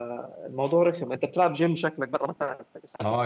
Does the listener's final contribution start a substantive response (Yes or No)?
Yes